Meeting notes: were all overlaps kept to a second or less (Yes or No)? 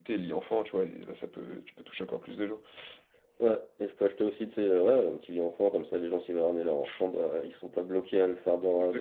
Yes